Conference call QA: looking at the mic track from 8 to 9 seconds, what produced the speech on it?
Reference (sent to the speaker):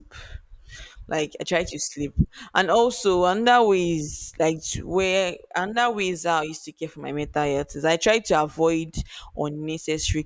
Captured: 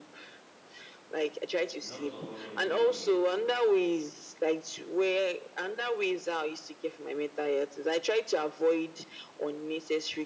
echo only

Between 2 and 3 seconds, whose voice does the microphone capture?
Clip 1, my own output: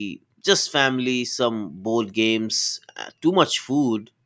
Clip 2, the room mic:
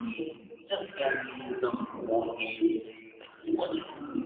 echo only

